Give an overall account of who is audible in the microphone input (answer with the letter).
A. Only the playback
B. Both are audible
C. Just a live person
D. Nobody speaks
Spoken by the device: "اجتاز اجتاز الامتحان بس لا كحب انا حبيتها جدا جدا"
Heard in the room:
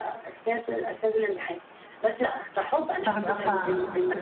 B